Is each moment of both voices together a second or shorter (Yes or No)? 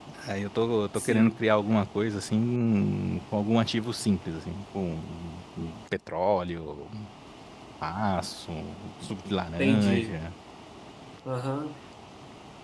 Yes